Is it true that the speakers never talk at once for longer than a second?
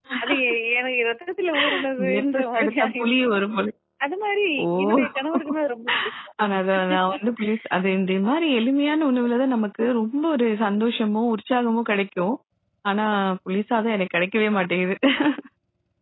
No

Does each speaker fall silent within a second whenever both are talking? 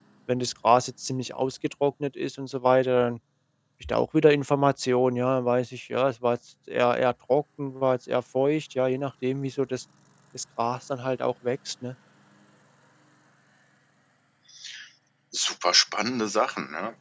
Yes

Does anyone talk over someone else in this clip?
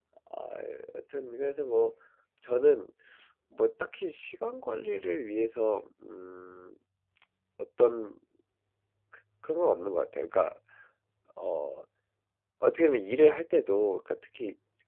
No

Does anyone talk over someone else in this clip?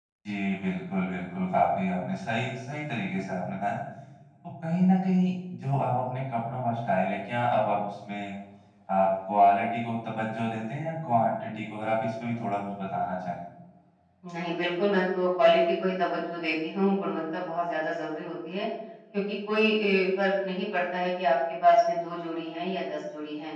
No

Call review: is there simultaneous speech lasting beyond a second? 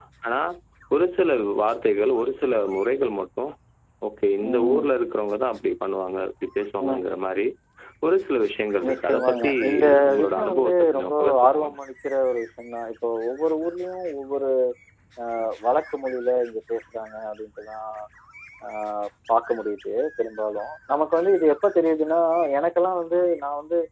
Yes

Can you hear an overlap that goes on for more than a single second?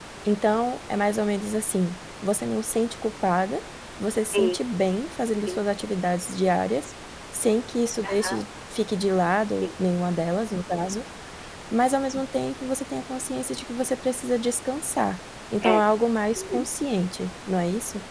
No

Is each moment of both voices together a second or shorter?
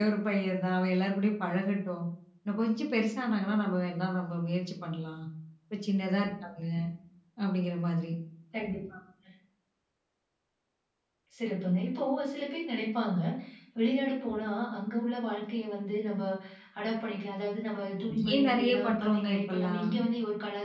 No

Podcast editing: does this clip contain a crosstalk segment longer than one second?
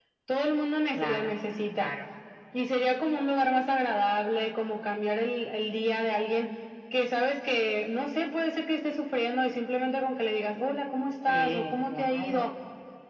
Yes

